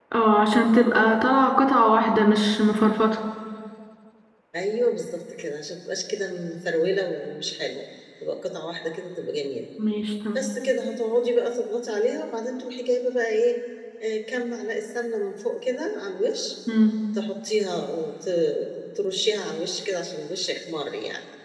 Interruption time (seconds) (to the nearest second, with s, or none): none